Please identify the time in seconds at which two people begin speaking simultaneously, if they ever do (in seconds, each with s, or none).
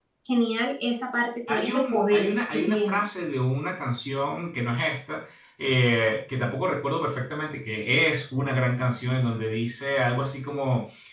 1.5 s